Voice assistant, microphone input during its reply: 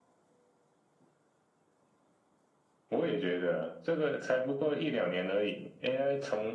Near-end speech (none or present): none